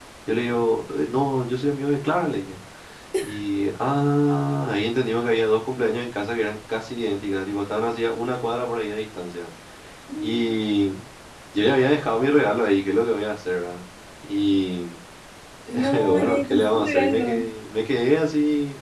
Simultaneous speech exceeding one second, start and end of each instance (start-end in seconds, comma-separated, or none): 15.9-17.4